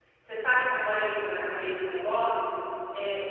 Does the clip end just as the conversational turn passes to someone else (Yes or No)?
No